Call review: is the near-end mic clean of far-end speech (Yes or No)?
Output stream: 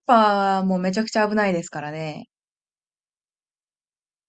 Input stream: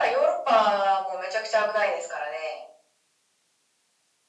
No